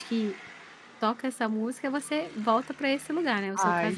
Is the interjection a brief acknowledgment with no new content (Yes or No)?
No